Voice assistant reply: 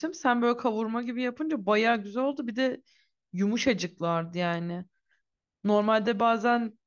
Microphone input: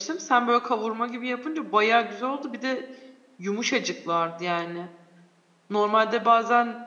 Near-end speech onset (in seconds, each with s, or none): none